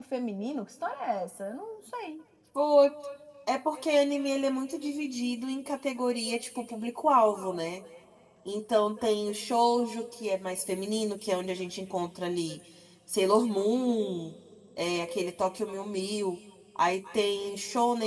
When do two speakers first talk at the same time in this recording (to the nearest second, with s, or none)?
none